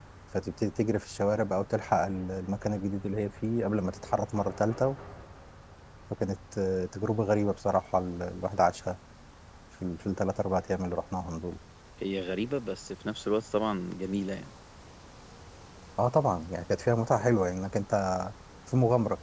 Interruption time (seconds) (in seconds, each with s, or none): none